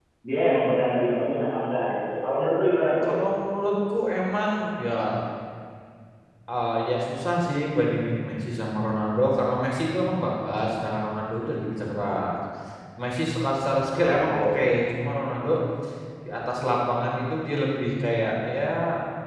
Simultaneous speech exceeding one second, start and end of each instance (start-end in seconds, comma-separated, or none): none